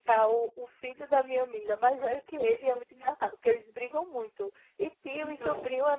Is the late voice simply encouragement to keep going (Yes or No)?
Yes